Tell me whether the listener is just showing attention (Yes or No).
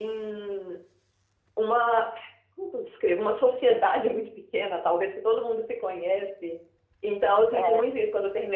Yes